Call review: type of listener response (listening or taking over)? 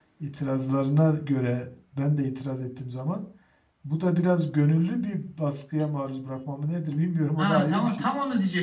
taking over